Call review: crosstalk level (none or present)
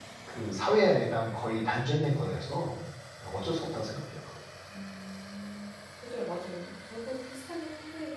none